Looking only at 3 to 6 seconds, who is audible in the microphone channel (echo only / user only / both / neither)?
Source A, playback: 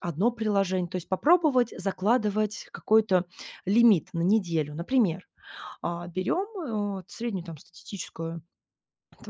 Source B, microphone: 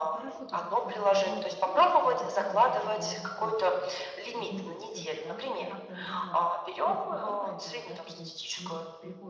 both